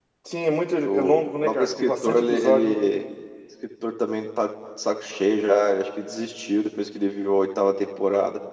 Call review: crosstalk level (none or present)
present